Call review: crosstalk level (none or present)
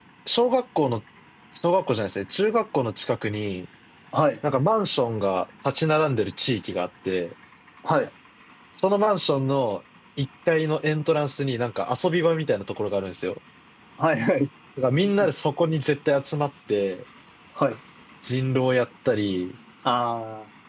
none